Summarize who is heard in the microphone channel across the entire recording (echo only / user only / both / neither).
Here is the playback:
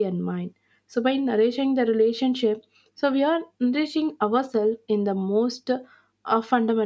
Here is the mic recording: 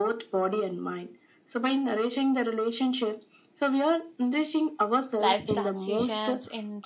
both